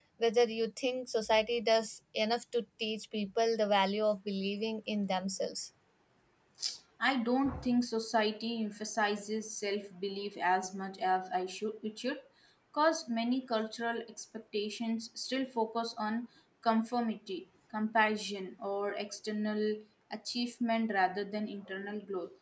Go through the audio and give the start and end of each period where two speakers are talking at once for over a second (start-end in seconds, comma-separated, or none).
none